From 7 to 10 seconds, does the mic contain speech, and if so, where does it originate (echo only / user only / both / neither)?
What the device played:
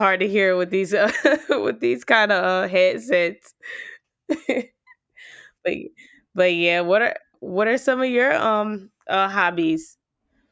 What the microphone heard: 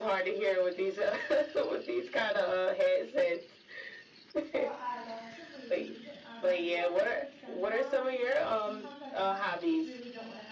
both